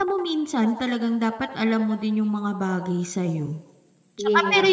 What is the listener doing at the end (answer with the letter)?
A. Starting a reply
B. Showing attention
B